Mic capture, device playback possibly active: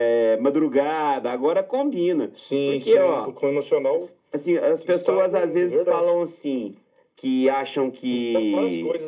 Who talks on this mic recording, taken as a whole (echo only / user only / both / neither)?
echo only